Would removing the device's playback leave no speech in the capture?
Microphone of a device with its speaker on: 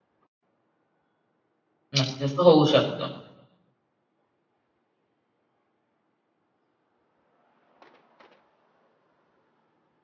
No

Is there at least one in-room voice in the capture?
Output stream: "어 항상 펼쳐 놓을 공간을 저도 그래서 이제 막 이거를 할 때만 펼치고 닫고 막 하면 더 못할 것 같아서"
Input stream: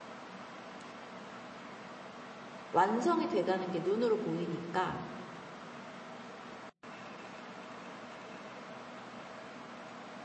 Yes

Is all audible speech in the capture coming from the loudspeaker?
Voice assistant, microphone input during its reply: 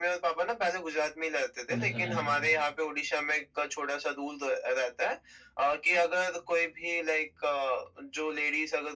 No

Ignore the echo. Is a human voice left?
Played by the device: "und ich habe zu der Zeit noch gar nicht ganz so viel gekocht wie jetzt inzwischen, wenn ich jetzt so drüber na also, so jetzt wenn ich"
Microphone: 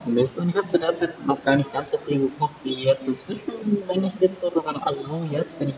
No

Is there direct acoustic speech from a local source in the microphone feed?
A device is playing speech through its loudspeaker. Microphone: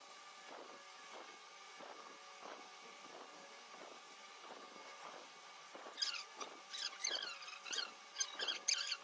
No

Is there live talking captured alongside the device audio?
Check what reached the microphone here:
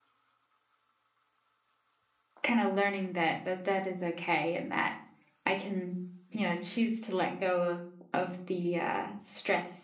Yes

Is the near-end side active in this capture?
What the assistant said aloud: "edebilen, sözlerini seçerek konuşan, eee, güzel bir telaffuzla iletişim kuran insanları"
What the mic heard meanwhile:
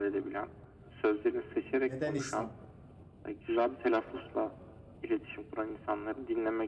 Yes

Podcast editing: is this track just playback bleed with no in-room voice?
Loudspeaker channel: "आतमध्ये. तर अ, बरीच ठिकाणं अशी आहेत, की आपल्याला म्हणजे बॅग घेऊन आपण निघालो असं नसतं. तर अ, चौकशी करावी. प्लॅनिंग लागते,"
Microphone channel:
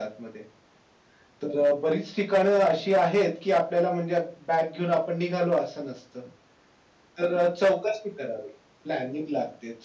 Yes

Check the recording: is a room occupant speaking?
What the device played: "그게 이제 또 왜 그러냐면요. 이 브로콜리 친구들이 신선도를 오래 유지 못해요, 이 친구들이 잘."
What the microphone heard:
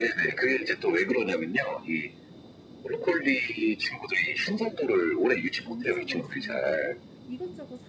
Yes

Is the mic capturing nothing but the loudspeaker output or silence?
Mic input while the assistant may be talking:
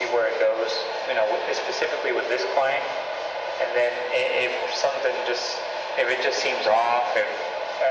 Yes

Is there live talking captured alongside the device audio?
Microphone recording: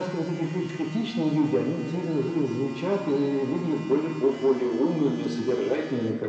No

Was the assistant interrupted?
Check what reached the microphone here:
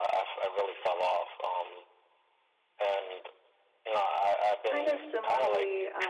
Yes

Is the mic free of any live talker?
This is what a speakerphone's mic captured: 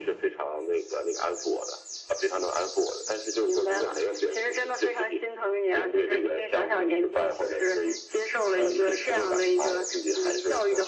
Yes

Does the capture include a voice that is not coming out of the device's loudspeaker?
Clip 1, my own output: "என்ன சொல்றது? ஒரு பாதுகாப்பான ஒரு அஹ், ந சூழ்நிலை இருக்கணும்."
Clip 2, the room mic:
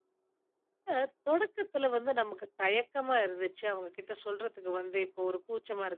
Yes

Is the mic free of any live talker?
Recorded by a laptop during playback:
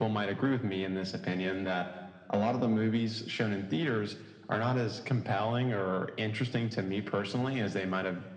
Yes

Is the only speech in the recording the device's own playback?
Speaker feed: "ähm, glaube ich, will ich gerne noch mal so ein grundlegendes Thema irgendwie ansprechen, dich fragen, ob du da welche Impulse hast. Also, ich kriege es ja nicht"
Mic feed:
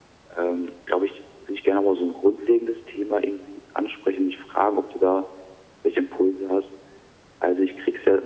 Yes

